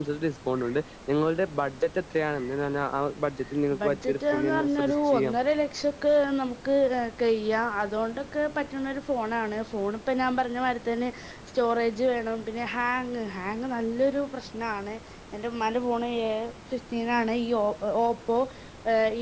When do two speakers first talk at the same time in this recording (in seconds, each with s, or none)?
3.7 s